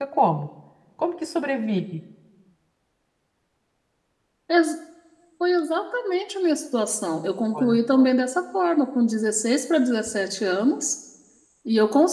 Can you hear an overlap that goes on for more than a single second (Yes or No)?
No